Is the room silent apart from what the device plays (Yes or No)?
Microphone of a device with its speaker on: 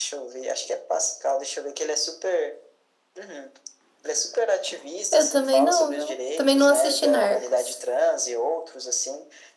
No